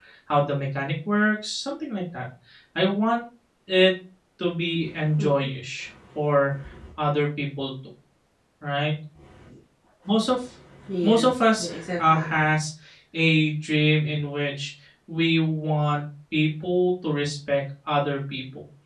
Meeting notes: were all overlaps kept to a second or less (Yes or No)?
No